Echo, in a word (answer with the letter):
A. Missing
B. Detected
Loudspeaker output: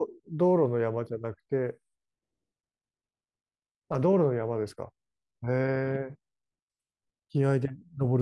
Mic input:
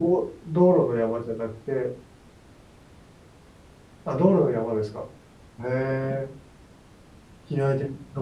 B